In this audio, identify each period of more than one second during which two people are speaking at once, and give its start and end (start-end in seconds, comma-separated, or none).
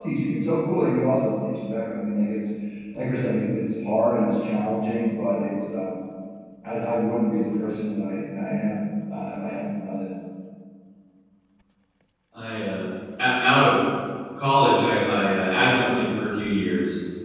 none